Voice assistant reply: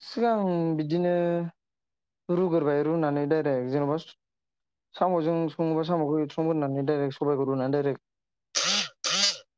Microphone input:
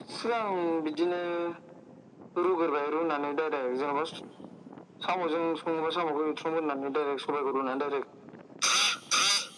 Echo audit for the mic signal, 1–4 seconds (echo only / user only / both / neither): echo only